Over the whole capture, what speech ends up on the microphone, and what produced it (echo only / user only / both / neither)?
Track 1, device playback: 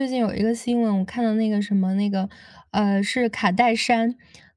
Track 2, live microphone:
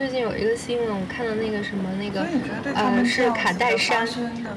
both